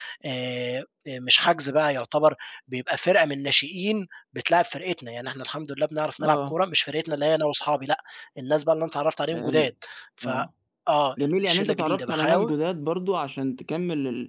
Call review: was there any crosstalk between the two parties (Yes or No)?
Yes